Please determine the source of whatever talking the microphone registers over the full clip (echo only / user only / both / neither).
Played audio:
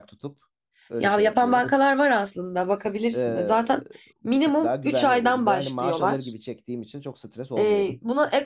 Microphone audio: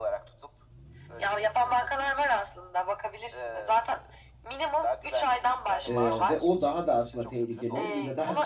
both